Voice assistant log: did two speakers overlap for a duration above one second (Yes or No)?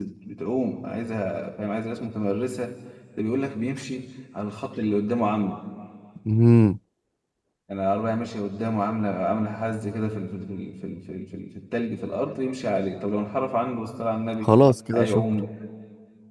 No